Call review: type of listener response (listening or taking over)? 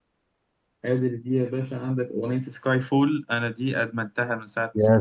taking over